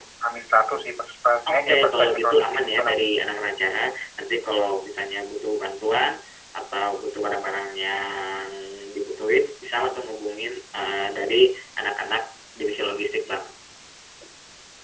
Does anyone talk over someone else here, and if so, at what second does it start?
1.4 s

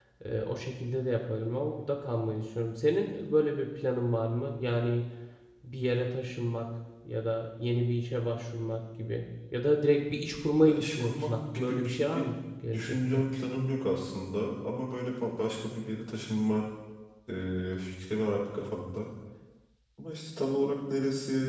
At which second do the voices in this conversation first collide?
10.7 s

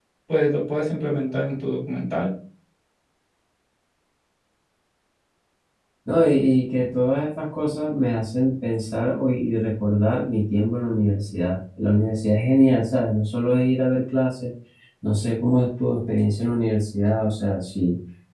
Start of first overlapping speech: none

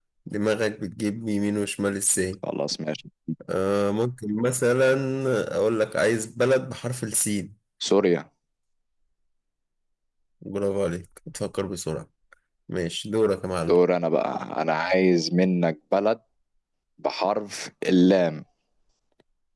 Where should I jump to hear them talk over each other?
none

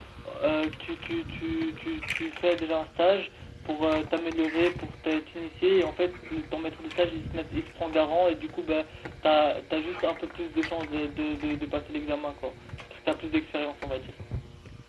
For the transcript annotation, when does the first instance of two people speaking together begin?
none

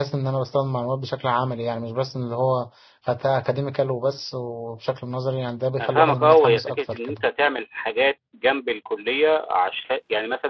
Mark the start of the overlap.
5.8 s

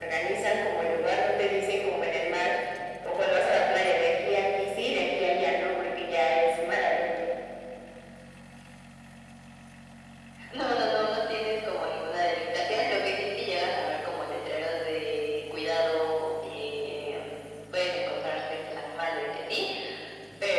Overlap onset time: none

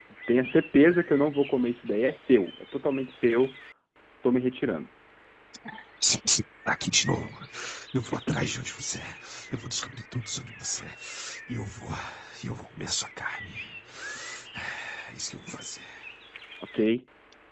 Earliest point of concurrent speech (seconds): none

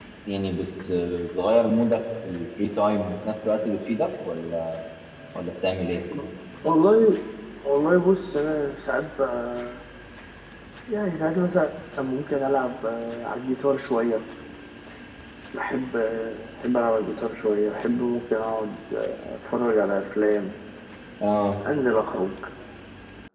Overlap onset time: none

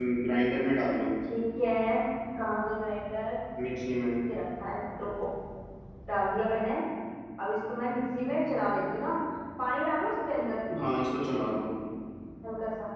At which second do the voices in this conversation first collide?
none

